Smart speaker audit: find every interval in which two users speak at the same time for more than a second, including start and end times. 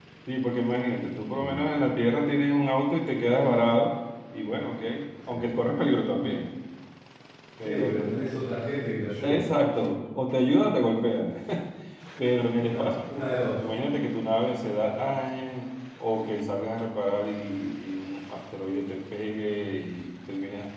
none

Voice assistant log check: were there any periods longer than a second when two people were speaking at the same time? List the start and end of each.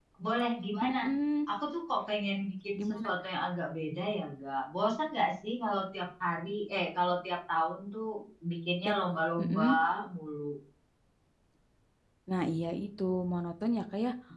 none

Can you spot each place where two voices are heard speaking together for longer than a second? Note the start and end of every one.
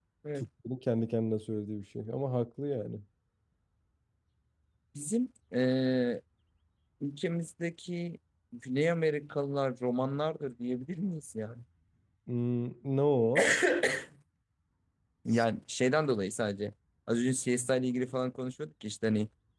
none

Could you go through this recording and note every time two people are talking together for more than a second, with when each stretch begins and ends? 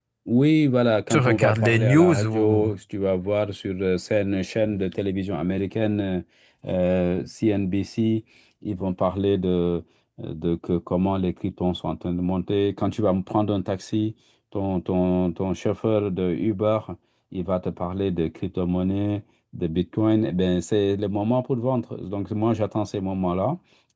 1.1-2.7

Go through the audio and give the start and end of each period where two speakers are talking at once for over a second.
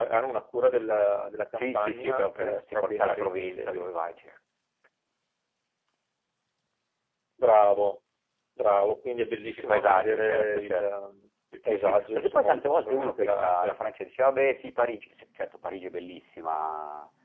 1.6-3.9, 9.6-10.8, 11.7-13.8

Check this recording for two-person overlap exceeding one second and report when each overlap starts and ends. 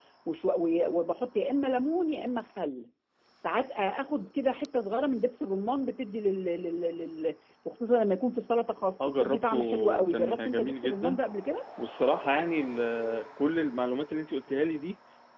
9.2-11.2

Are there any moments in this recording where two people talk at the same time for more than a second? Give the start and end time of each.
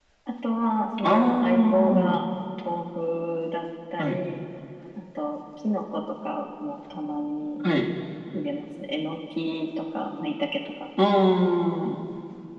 1.0-2.2

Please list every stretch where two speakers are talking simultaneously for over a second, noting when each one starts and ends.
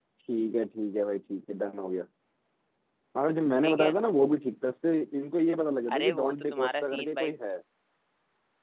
6.0-7.3

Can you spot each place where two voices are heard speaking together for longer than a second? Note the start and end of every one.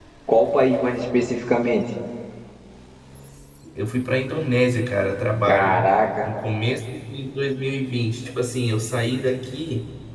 none

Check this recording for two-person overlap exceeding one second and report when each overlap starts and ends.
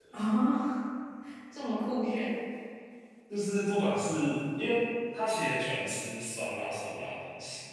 none

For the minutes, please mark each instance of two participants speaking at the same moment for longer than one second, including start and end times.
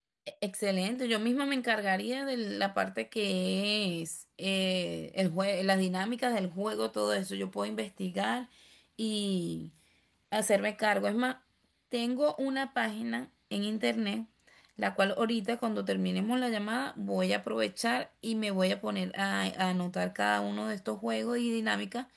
none

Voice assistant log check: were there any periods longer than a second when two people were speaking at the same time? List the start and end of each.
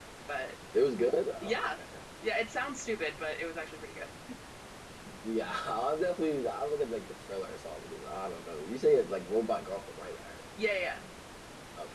none

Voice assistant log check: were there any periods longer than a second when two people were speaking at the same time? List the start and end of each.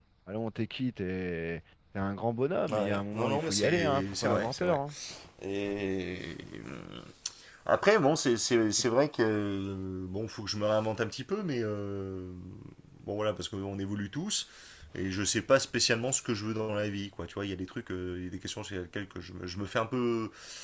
2.7-4.8

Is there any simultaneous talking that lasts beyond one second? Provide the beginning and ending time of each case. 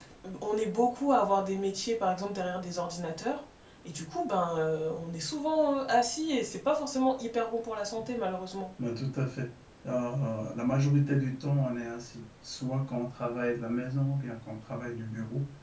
none

